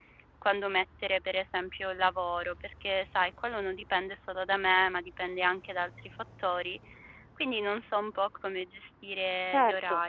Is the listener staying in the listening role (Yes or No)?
No